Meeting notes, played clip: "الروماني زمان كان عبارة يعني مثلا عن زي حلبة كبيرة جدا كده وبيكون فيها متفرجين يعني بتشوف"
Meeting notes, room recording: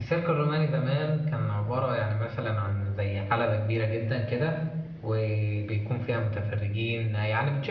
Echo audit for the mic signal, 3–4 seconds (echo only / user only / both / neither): echo only